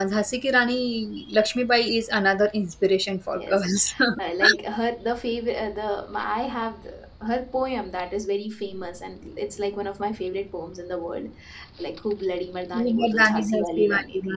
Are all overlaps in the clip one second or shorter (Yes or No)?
No